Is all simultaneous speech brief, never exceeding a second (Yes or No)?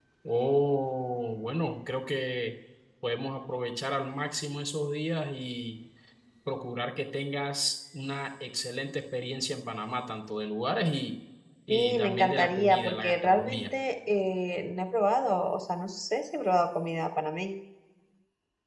No